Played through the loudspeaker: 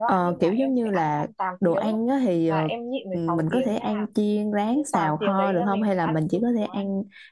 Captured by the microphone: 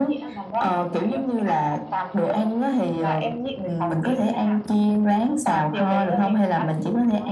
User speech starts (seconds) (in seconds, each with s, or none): none